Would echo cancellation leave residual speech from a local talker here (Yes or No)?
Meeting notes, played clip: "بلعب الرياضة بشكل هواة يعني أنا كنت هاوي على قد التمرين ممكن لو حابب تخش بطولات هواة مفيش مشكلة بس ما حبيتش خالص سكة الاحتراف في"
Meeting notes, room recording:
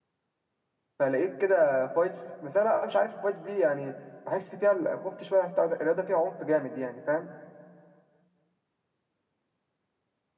Yes